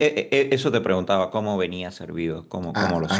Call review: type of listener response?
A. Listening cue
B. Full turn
B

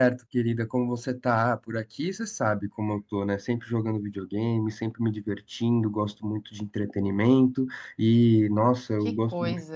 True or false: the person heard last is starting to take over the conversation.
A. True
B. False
B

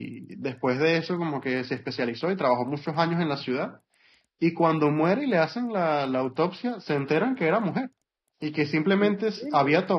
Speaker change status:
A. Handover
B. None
B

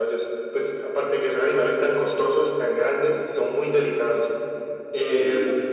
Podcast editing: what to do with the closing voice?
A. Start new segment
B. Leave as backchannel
A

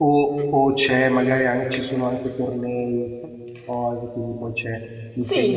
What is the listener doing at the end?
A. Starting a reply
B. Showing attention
A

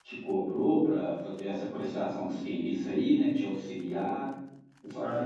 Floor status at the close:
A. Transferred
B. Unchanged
A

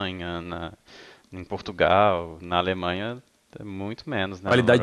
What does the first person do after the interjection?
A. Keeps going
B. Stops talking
B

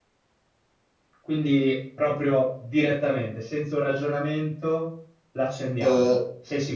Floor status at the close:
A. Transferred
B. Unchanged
A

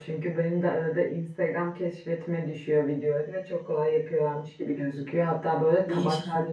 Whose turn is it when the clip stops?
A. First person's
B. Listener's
A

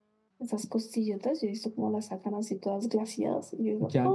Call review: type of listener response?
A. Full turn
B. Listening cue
A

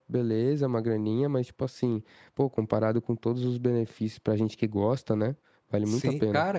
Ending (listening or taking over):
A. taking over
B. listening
A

